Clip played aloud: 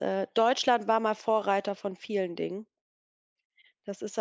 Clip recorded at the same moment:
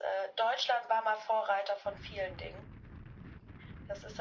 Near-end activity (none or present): none